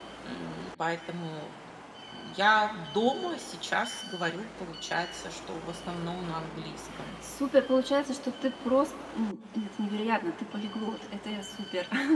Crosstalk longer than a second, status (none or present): none